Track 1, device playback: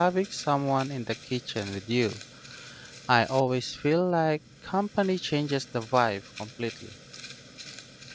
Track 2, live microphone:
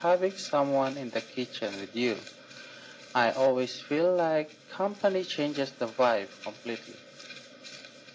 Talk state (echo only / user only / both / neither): echo only